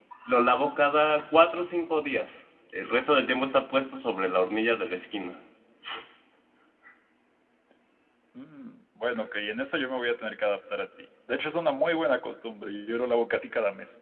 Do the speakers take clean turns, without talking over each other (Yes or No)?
Yes